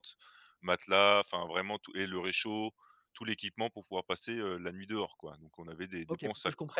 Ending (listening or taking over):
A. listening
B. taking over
B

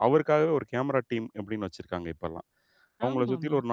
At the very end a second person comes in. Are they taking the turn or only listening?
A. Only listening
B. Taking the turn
A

